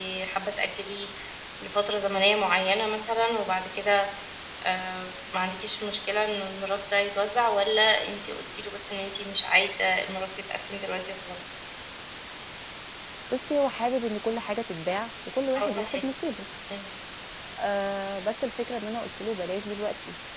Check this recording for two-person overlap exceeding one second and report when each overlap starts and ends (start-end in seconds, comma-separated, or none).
none